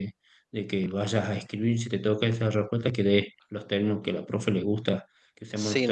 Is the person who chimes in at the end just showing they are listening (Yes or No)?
No